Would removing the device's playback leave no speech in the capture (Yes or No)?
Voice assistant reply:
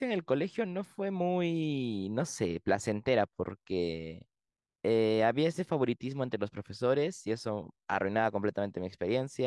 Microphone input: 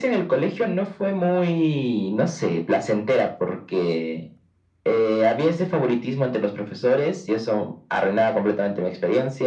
Yes